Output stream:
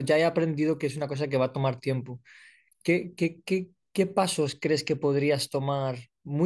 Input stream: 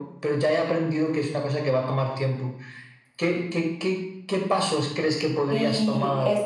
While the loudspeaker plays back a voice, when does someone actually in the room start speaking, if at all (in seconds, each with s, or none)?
5.5 s